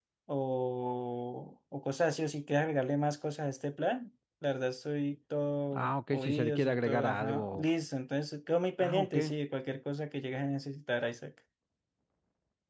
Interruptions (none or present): present